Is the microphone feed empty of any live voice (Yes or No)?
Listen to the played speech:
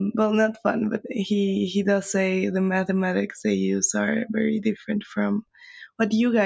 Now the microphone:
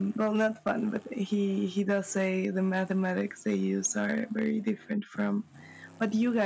Yes